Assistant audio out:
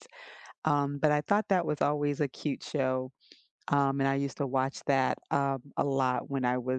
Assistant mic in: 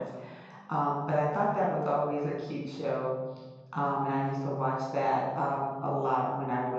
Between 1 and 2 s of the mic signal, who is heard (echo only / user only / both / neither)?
echo only